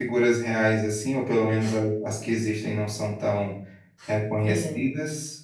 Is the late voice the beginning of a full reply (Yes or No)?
No